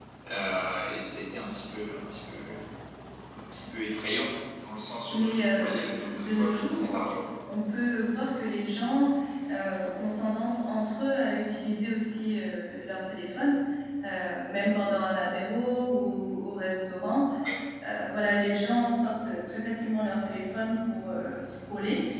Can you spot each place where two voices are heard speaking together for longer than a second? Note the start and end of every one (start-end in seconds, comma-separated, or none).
5.1-7.0